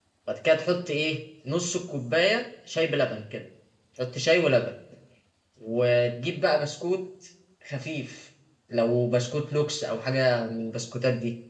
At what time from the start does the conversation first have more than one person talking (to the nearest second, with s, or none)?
none